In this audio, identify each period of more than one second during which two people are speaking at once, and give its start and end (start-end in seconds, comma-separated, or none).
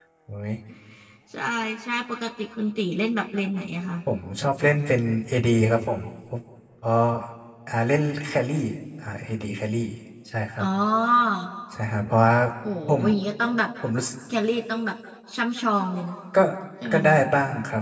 none